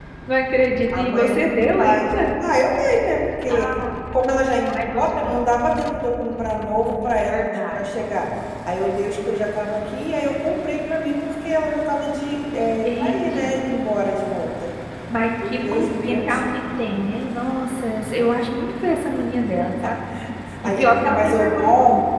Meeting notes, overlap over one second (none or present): present